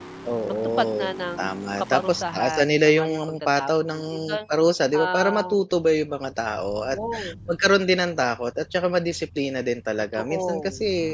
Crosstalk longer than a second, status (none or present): present